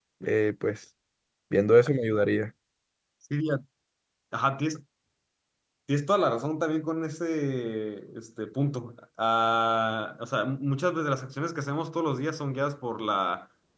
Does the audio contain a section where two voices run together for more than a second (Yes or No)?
No